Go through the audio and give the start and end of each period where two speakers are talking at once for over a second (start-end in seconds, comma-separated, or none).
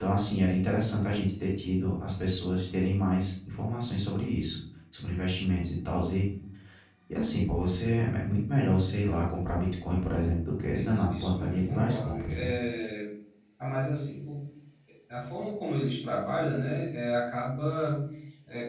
10.7-12.5